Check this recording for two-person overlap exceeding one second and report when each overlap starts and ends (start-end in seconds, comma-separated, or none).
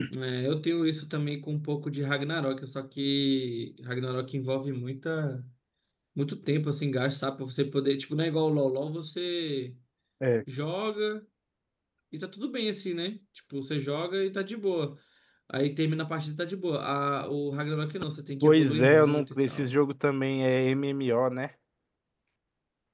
18.4-19.8